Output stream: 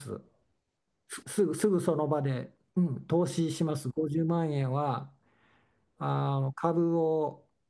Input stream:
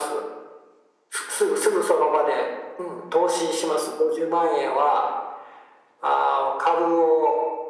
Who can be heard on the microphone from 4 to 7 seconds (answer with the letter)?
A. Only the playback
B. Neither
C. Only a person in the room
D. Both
A